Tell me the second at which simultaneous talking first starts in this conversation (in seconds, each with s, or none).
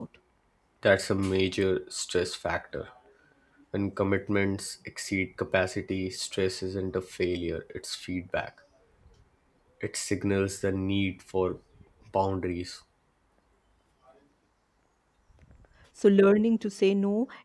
none